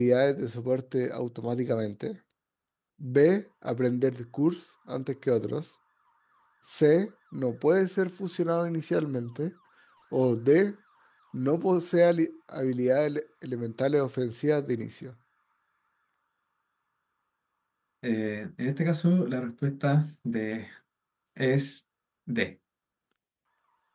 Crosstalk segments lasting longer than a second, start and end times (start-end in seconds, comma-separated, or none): none